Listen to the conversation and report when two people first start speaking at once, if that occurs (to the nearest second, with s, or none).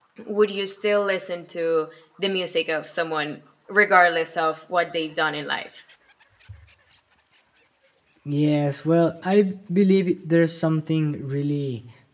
none